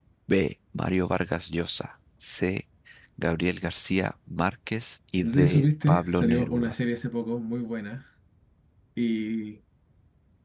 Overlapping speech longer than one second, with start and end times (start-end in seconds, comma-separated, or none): 5.2-6.7